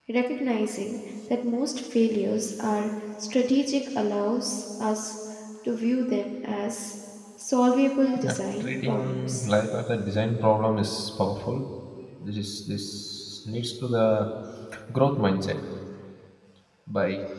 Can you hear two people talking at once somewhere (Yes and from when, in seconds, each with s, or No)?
Yes, from 8.2 s